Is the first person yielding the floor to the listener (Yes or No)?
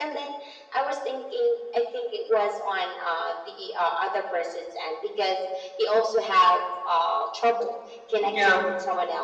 No